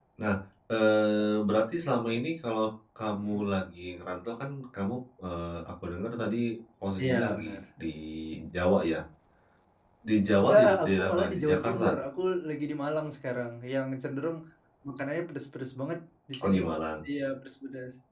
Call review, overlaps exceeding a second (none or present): present